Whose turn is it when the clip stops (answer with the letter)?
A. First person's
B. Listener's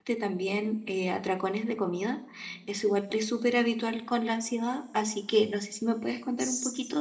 B